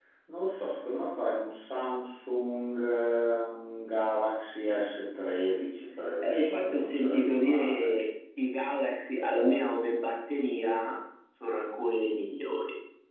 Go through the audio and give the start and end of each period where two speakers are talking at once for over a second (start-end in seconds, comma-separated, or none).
6.2-7.9